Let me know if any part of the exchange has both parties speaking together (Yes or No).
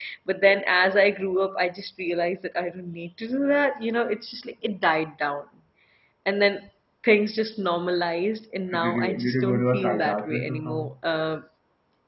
Yes